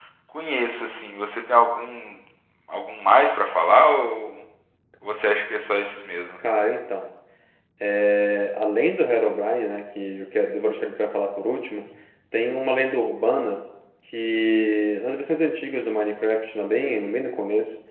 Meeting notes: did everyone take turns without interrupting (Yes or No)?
Yes